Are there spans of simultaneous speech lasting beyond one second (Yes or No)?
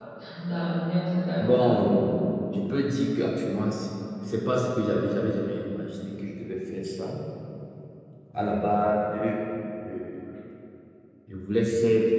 No